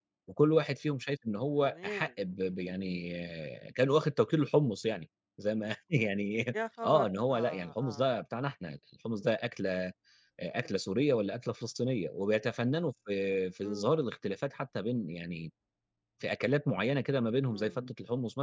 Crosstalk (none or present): present